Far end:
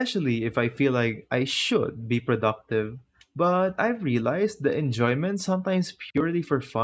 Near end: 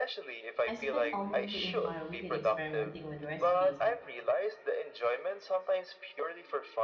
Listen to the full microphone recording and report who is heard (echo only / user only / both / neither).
both